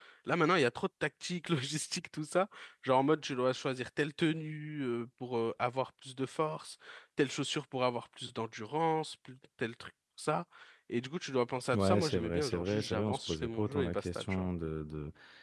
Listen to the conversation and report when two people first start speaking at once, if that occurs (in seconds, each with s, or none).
11.8 s